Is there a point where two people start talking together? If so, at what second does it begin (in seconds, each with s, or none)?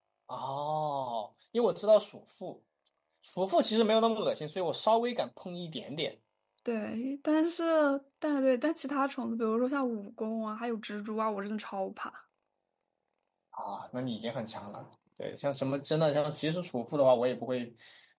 none